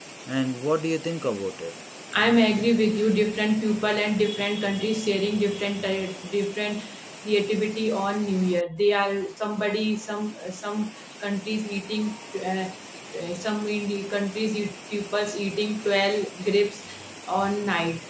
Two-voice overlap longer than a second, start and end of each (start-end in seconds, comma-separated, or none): none